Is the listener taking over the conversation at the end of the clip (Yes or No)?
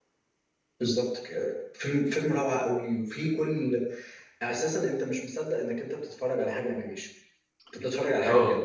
Yes